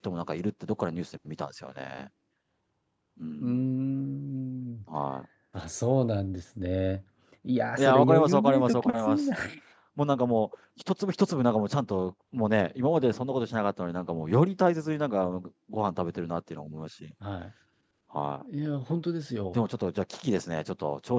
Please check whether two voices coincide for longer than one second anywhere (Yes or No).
Yes